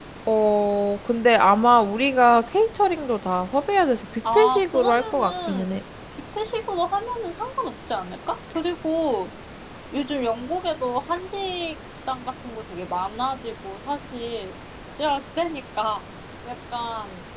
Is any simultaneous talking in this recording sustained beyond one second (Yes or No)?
Yes